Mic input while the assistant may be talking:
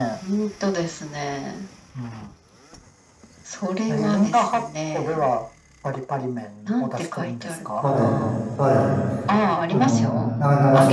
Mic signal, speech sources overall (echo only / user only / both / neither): both